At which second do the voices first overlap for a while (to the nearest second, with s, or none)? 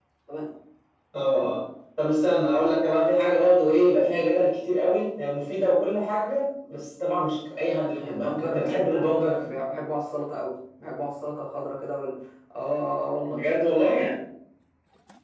8 s